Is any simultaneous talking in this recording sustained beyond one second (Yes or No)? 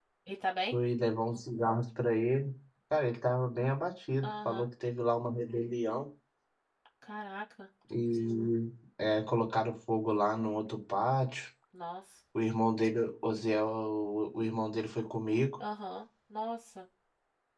No